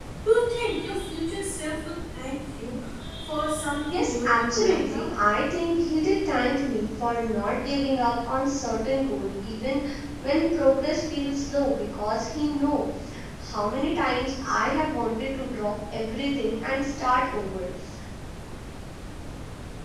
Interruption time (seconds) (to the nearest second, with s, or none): 4 s